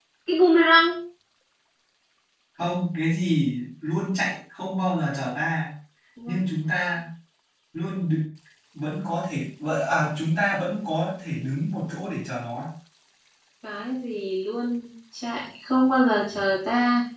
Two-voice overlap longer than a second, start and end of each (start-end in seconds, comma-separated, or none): none